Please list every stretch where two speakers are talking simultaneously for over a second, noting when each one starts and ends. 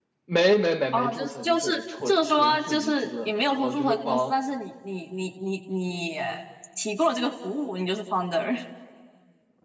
0.9-4.3

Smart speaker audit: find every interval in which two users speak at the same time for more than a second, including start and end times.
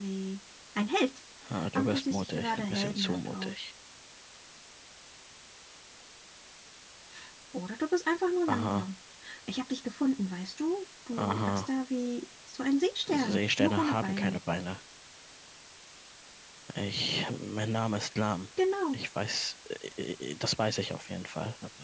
1.8-3.5, 13.1-14.4

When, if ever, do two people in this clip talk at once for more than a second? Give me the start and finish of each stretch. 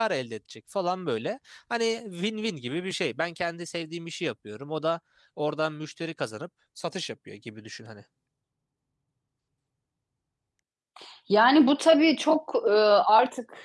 none

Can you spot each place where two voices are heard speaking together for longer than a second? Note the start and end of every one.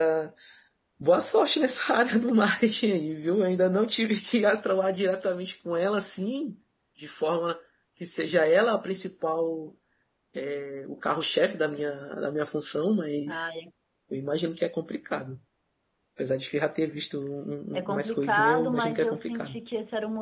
17.7-19.6

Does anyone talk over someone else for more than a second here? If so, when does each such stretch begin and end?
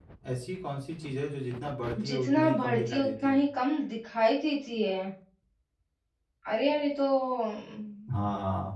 2.1-3.4

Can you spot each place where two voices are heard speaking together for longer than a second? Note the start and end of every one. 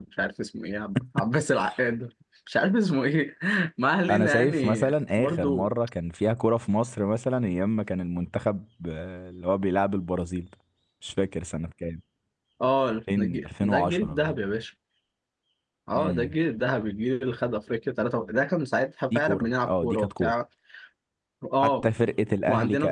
4.1-5.7, 13.2-14.4, 19.1-20.3

